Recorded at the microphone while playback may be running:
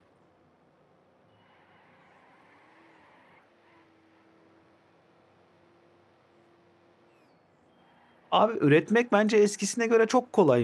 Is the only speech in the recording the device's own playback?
No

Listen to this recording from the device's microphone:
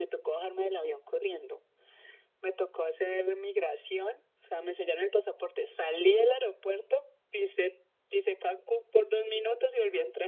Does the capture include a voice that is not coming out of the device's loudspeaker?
No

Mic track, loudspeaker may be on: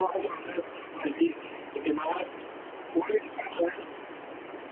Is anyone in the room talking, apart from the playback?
No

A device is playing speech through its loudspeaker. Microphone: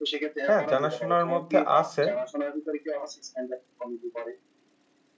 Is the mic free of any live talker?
No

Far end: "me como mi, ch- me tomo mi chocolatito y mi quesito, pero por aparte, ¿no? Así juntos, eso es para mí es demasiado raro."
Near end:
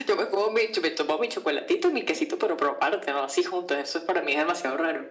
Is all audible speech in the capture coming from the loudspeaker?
Yes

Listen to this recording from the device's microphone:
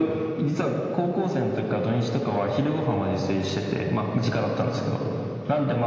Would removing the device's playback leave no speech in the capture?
Yes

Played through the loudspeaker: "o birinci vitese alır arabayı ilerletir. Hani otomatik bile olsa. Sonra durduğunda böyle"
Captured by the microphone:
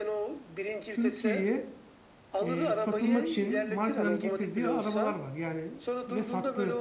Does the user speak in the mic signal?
Yes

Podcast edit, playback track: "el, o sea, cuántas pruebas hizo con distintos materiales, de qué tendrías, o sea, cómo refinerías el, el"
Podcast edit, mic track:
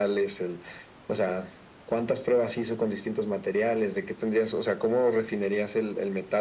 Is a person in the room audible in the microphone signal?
No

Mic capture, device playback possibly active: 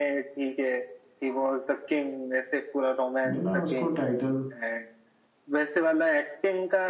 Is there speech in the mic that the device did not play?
Yes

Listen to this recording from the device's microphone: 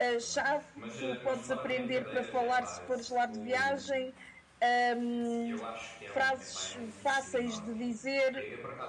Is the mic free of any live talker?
No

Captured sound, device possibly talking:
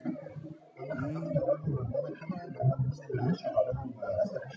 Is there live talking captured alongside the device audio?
Yes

